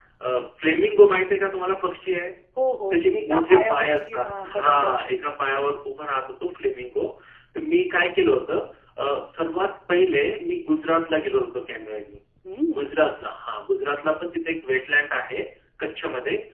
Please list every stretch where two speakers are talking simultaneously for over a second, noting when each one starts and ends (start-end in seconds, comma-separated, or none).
2.9-5.0